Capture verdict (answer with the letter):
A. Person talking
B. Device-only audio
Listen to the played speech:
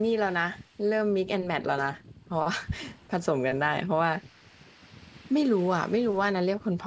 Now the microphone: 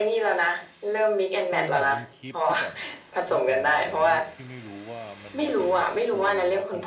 A